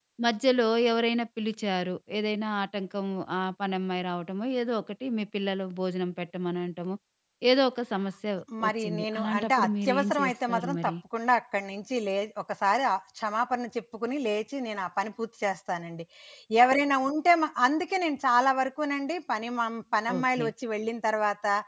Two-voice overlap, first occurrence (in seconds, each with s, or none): 8.7 s